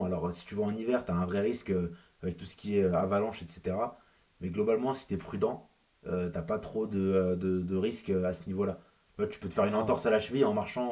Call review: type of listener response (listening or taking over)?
listening